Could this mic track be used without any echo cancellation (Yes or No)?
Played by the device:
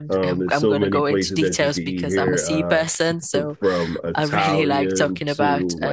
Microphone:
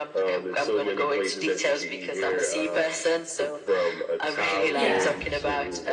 No